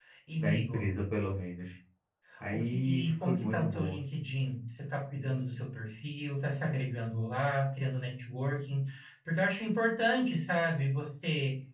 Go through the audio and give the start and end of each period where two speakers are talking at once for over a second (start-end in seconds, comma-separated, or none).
2.5-4.0